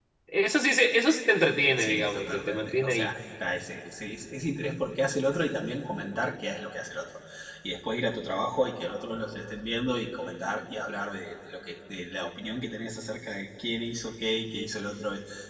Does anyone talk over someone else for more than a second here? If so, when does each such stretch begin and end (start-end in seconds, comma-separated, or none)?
1.8-3.1